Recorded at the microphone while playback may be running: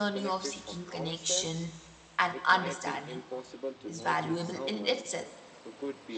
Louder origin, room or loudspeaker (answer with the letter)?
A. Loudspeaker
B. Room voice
B